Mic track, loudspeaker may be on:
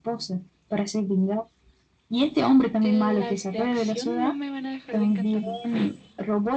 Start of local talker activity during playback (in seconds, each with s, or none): 2.8 s